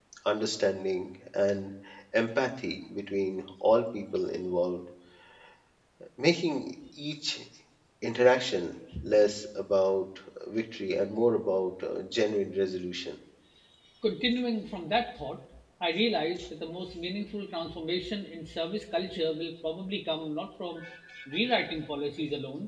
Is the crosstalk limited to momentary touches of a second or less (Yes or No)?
Yes